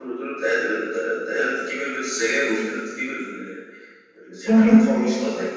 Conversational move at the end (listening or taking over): listening